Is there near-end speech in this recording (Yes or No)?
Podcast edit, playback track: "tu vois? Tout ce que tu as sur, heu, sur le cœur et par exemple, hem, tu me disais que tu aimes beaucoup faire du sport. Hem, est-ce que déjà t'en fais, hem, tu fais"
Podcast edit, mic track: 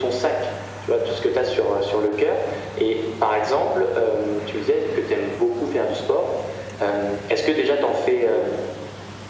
No